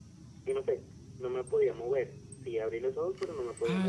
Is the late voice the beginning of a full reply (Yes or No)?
Yes